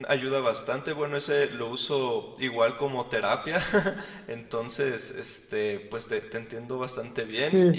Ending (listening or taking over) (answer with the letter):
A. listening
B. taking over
B